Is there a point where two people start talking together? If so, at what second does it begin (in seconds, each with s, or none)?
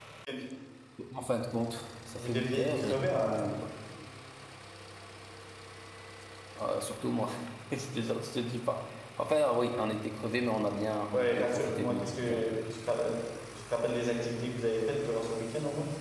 2.2 s